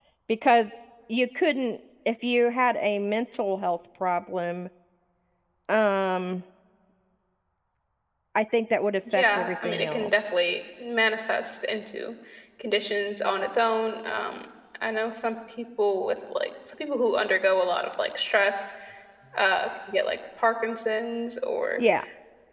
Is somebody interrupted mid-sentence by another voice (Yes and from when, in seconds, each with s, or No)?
Yes, from 9.1 s